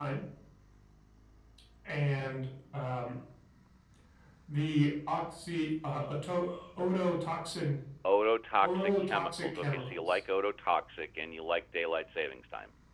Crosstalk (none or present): present